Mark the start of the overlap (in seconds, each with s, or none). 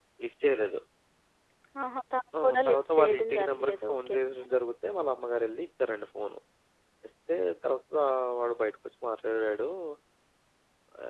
2.4 s